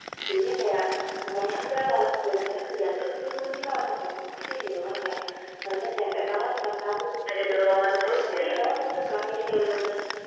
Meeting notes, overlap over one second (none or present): none